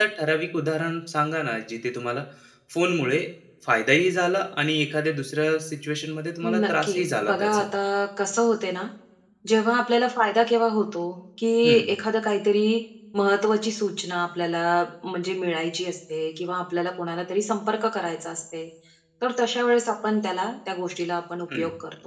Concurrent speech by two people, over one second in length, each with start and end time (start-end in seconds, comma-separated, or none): 6.4-7.6